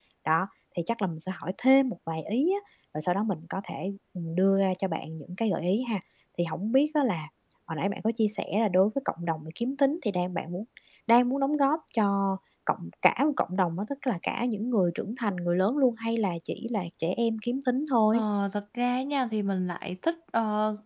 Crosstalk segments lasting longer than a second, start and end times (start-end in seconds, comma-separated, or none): none